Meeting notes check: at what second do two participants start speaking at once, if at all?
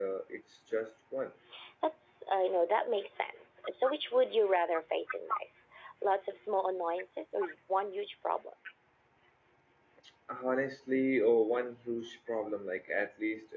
none

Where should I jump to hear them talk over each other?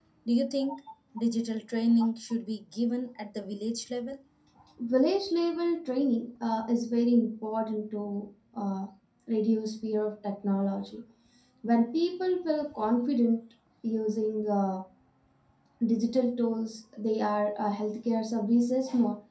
none

